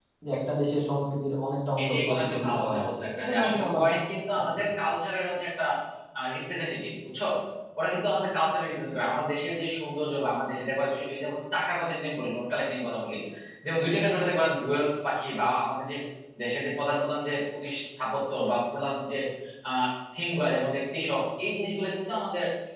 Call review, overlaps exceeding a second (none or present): present